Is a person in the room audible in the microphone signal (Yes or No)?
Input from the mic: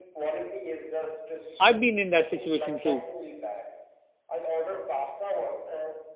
Yes